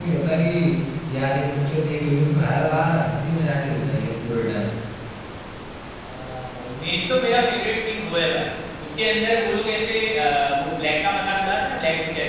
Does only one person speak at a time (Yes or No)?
Yes